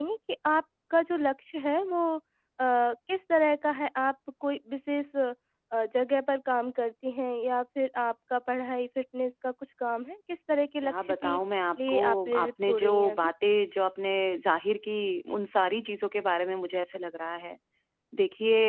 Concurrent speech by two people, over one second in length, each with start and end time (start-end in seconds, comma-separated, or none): 11.8-13.3